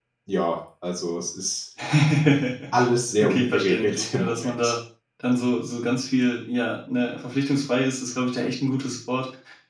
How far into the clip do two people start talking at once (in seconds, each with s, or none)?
3.2 s